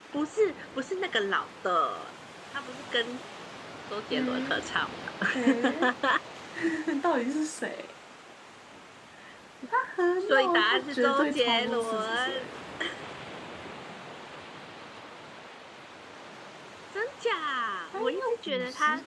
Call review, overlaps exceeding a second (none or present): present